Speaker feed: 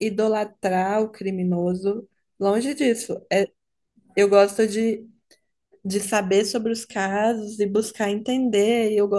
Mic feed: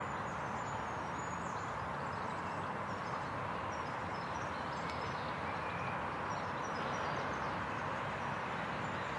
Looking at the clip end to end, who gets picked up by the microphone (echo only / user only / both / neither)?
neither